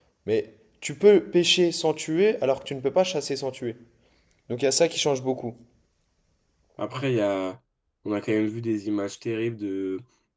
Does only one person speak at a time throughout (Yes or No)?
Yes